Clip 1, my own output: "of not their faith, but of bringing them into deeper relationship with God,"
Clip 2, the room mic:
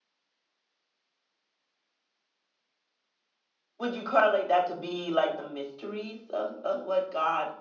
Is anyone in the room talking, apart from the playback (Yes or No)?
Yes